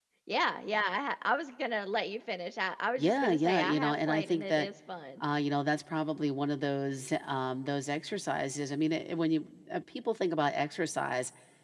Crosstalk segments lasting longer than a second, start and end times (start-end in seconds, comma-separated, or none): 3.0-4.7